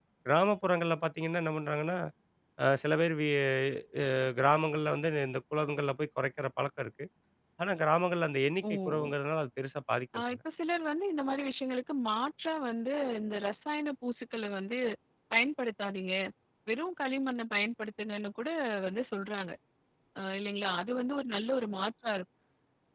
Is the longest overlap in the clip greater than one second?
No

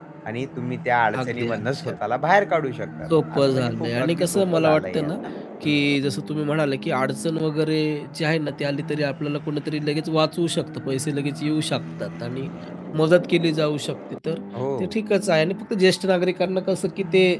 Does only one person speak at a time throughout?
No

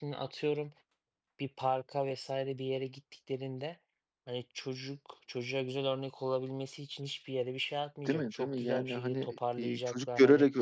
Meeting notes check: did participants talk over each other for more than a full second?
Yes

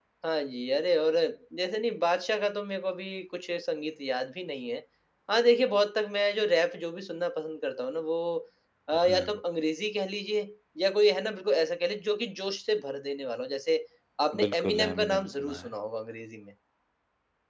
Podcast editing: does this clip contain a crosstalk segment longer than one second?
Yes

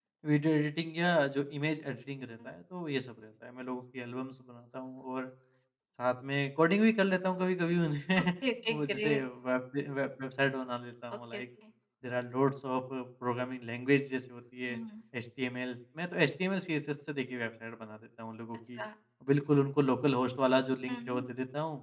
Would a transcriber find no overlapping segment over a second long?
Yes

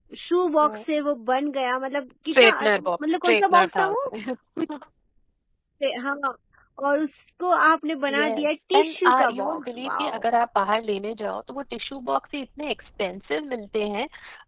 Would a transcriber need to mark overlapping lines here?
Yes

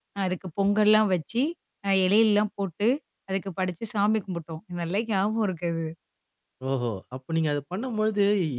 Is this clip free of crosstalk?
Yes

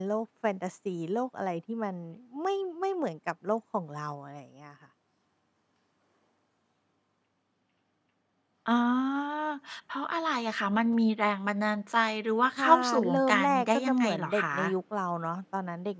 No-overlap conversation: No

